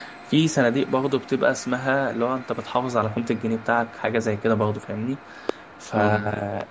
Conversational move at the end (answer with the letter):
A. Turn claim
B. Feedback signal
B